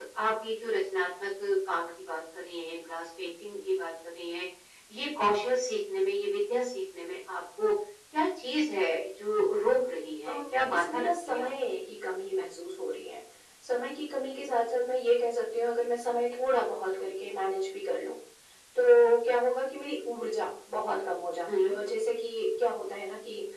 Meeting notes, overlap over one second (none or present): present